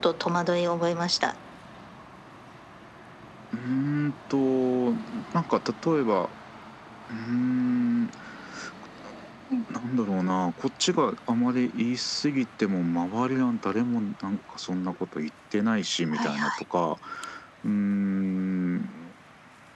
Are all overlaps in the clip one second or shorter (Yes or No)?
Yes